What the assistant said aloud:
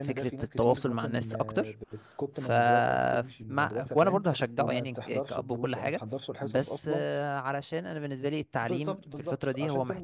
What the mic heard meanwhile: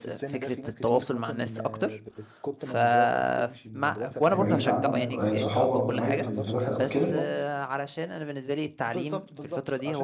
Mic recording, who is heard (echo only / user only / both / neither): both